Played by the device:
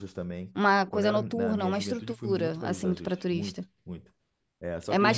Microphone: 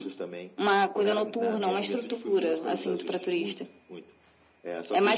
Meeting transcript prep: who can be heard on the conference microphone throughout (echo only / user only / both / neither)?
echo only